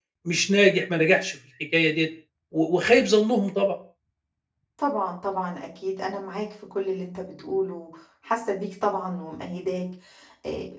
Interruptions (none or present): none